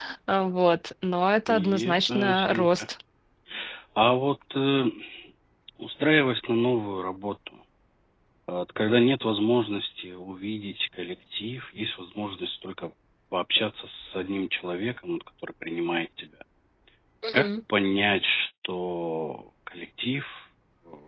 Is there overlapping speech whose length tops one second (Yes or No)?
Yes